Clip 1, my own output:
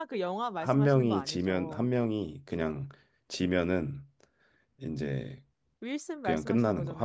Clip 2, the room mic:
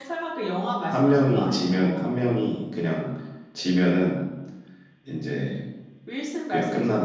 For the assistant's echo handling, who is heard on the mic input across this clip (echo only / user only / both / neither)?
echo only